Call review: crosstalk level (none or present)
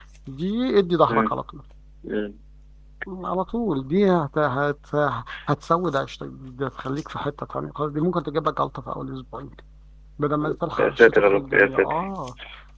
present